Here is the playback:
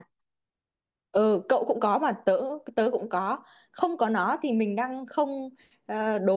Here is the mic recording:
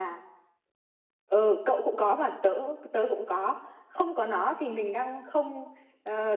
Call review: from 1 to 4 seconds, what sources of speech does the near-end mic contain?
echo only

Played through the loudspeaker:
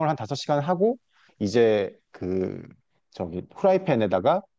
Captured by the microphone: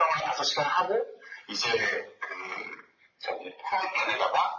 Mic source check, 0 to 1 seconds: echo only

